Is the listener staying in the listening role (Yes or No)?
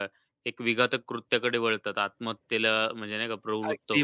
No